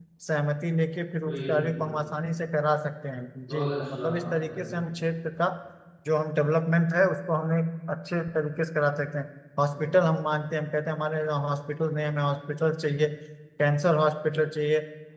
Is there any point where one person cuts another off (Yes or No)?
Yes